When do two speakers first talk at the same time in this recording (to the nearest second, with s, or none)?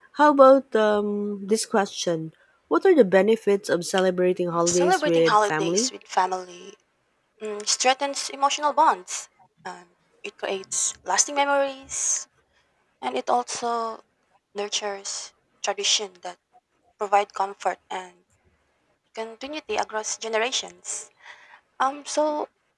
5 s